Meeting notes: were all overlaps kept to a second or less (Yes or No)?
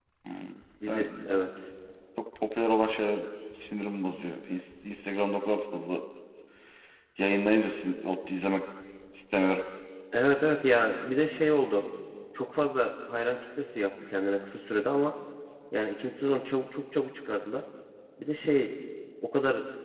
Yes